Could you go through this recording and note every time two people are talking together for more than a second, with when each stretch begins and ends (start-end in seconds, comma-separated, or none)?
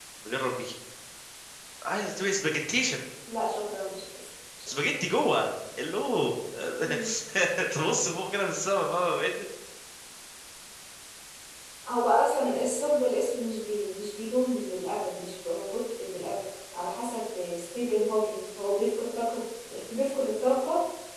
none